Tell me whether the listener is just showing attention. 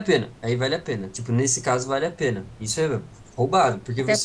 Yes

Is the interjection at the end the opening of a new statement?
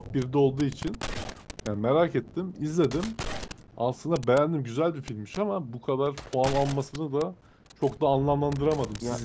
Yes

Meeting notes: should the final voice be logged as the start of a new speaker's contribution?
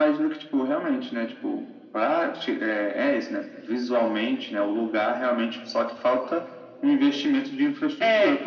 No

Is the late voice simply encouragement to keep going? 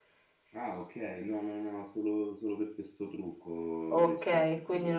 No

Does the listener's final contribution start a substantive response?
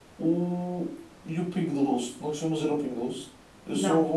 No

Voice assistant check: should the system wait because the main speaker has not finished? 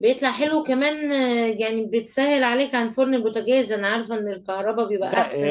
No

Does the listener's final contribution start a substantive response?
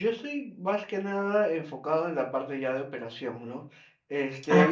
No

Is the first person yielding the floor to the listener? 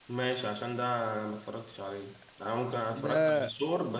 No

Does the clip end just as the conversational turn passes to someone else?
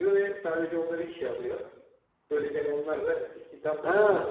Yes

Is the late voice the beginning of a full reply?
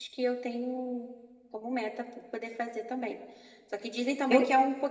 No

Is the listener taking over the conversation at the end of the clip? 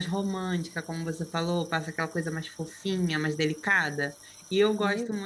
No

